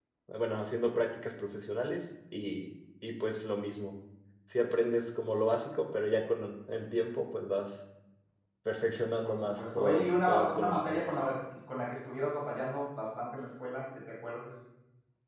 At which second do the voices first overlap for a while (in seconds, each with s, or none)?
9.2 s